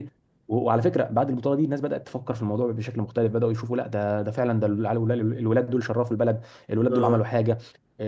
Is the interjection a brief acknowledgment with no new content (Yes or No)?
Yes